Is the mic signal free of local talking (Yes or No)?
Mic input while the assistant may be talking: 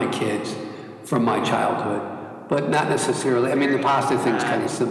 No